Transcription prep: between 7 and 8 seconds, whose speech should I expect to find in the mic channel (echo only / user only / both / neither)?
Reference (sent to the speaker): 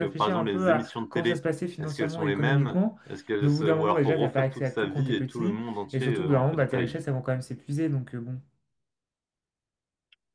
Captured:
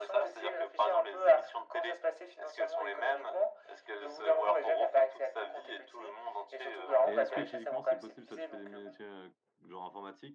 both